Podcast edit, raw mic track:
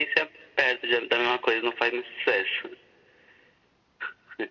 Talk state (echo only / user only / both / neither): echo only